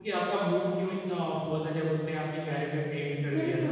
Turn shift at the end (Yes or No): Yes